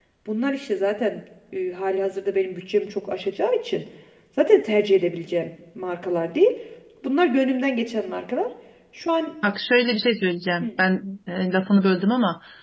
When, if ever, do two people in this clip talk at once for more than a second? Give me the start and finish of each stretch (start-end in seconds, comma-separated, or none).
none